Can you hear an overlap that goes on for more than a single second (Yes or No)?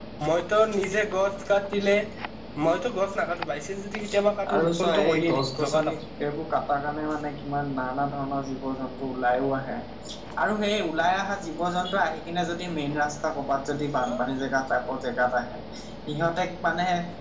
Yes